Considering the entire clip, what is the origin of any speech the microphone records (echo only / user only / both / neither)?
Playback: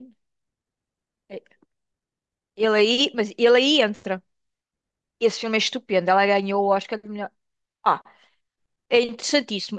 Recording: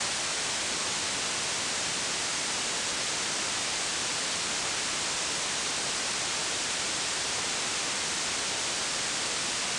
neither